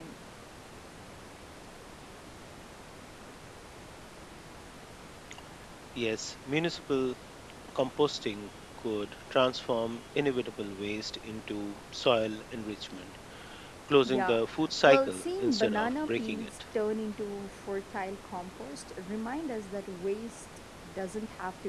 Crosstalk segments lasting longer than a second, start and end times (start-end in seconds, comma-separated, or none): 14.9-16.5